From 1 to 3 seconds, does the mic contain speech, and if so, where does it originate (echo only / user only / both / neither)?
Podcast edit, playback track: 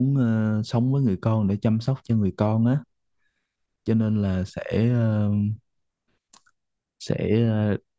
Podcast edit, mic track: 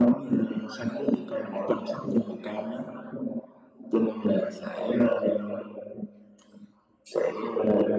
echo only